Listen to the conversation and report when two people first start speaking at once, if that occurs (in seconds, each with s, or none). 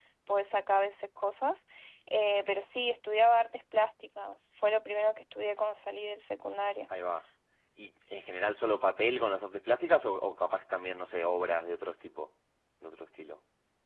none